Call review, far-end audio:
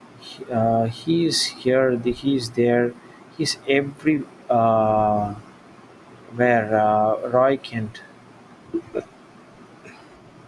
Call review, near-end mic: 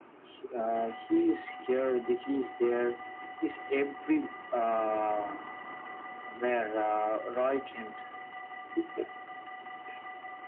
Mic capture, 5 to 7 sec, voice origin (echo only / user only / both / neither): echo only